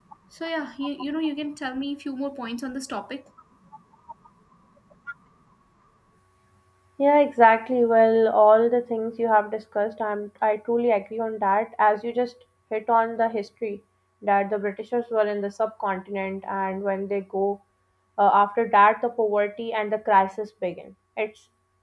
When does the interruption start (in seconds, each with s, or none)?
none